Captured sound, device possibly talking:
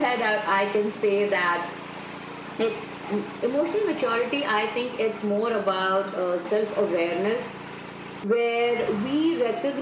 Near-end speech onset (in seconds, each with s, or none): none